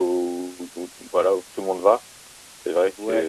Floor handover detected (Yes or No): Yes